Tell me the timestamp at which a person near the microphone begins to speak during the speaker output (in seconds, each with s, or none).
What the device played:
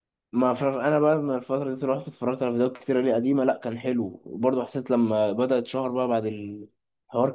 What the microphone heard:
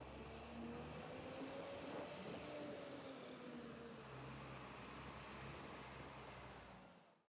none